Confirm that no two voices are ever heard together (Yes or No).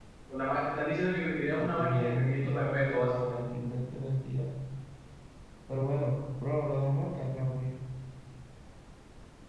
No